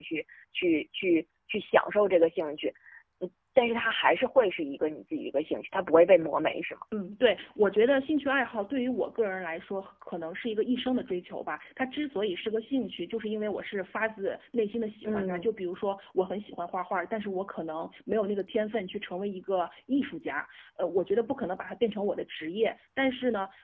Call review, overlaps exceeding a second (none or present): none